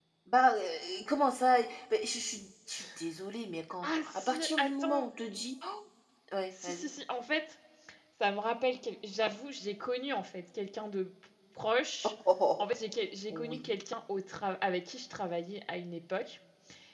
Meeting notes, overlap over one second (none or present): present